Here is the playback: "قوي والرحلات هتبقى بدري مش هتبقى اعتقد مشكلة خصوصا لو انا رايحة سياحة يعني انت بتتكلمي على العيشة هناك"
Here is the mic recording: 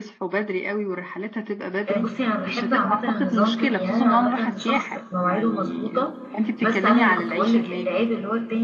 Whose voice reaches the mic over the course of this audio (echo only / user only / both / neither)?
both